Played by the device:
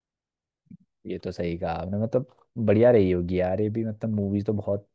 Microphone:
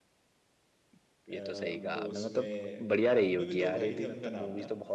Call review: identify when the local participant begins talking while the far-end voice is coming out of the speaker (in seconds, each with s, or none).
1.3 s